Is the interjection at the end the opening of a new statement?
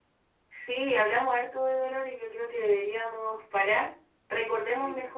No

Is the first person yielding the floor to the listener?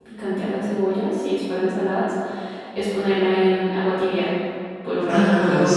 Yes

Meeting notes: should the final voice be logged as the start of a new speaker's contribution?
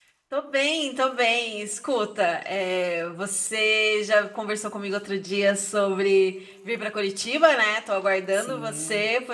No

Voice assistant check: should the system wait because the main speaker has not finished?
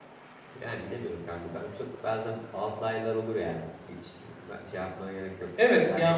No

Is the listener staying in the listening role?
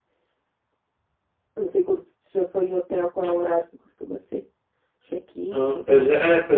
No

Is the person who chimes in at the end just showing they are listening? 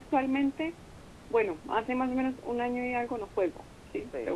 No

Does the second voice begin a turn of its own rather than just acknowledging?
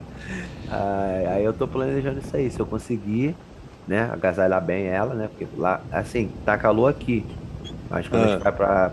No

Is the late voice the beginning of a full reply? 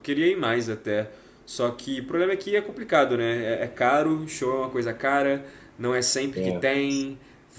No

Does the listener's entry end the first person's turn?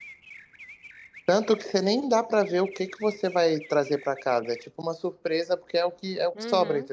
Yes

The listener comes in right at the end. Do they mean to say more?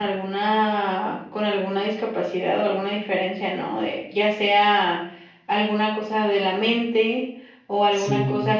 No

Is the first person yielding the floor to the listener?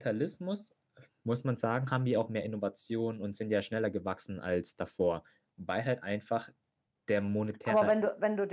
Yes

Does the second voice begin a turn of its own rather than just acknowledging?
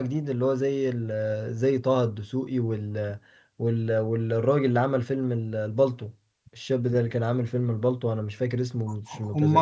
Yes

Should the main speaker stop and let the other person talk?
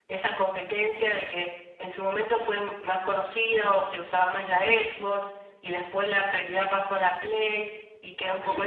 No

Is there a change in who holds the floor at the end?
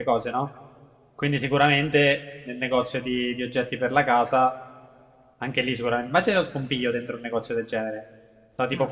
No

